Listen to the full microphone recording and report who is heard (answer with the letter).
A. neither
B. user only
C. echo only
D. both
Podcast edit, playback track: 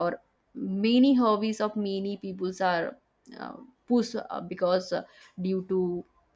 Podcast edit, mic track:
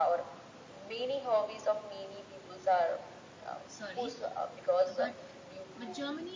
D